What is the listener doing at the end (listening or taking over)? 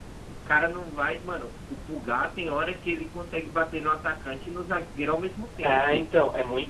taking over